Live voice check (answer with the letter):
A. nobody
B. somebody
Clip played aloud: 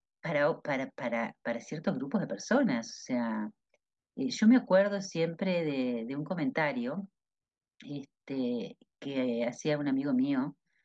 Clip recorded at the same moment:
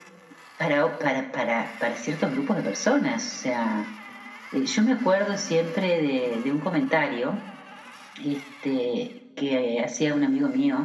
A